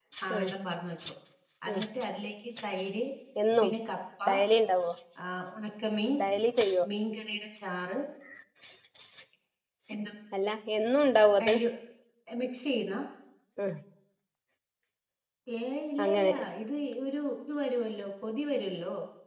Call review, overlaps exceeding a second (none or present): none